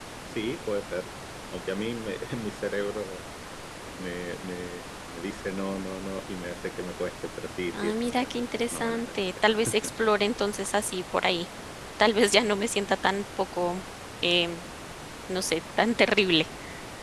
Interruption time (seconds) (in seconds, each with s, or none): 7.7 s